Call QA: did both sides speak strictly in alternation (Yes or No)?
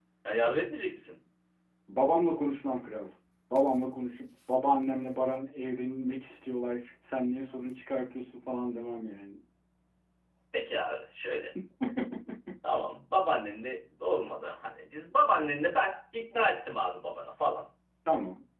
Yes